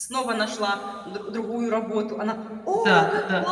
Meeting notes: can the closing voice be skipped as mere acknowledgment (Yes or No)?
Yes